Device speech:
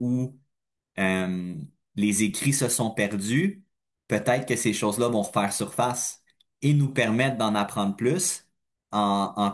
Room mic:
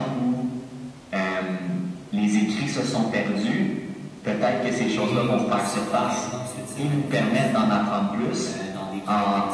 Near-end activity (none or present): present